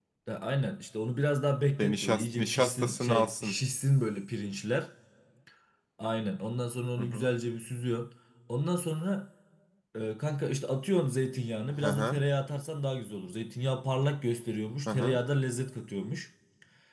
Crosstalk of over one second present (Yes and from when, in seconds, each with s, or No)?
Yes, from 1.8 s